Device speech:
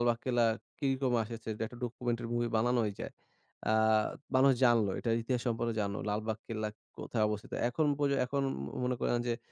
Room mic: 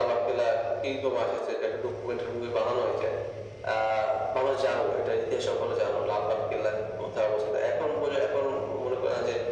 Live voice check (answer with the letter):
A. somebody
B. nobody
B